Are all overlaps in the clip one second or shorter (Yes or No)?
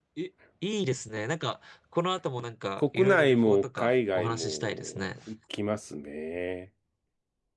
No